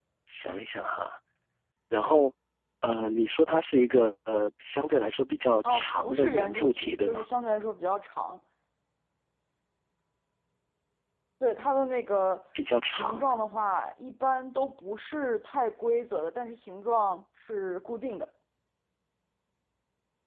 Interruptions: present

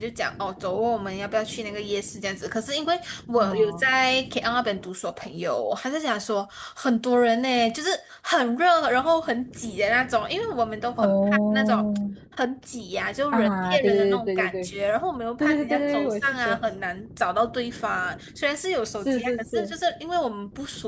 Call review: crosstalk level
present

